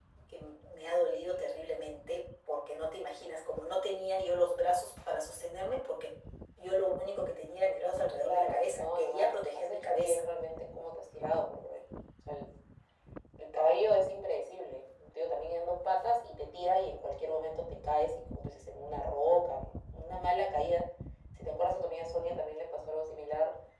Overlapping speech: Yes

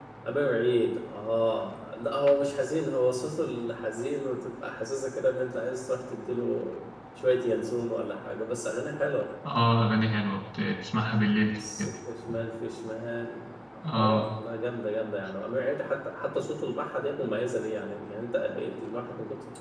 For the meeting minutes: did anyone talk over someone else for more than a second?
No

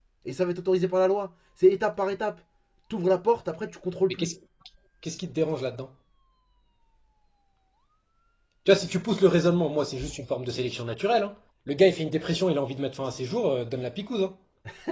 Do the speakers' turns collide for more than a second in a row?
No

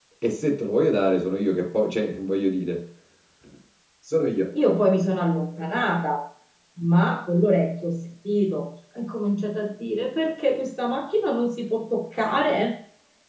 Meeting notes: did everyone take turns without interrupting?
Yes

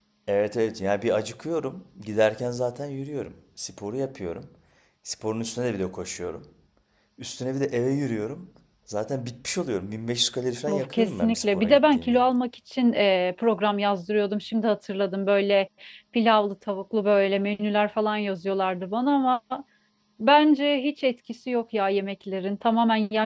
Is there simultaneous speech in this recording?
Yes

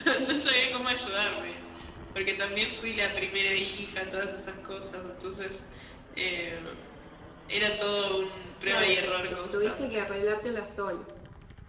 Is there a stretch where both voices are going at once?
Yes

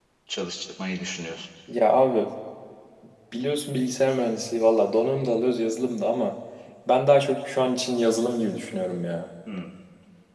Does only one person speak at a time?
Yes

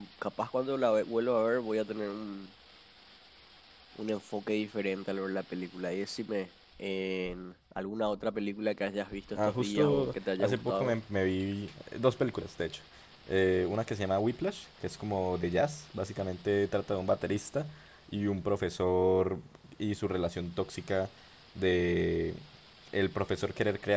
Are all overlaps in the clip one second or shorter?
No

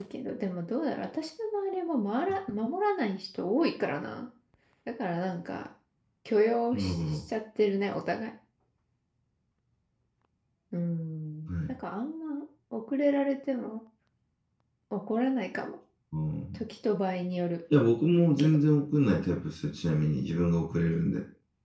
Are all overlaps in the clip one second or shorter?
Yes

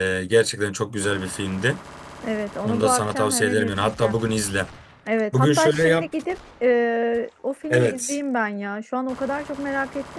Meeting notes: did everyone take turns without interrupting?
No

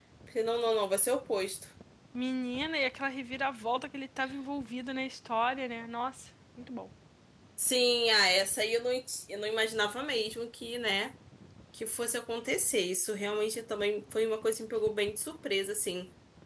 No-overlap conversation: Yes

